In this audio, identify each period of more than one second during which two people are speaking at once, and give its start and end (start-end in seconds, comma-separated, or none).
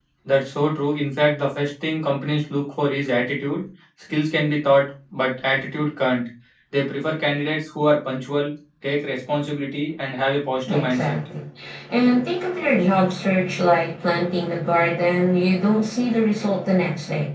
none